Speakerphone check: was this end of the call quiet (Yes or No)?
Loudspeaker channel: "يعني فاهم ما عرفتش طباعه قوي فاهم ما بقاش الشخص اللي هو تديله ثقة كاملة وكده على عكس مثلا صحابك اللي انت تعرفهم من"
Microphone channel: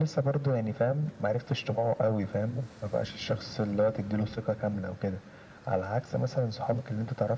Yes